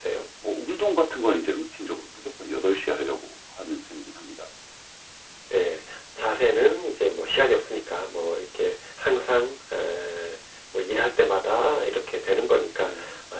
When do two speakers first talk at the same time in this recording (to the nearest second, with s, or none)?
none